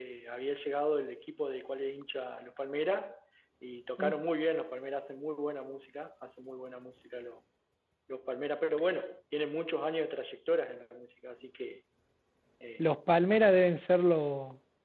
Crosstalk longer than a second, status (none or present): none